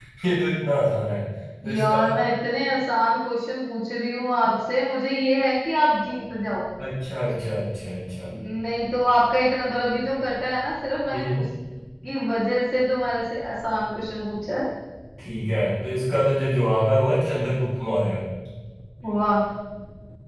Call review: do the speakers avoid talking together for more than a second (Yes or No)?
Yes